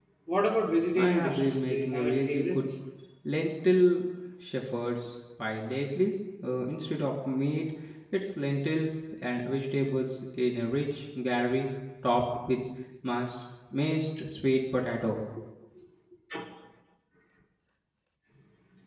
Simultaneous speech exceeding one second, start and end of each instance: 0.9-2.6

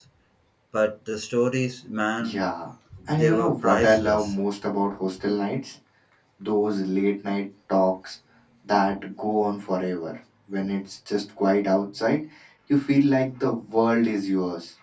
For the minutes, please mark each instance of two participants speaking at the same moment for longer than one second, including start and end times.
3.1-4.3

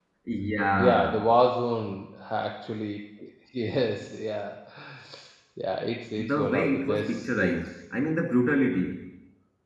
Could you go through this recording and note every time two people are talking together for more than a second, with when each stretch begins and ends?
6.2-7.7

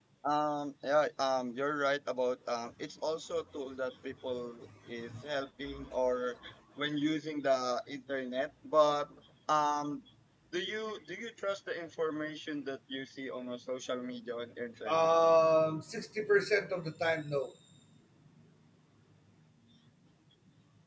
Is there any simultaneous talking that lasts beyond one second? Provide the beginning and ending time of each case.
none

